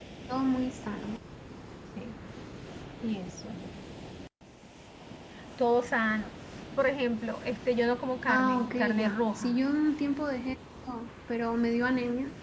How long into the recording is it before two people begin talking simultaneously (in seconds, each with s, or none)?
8.3 s